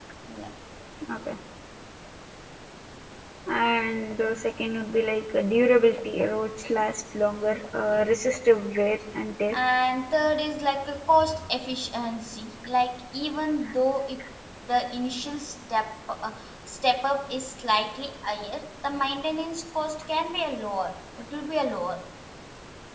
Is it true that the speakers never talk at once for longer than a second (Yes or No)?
Yes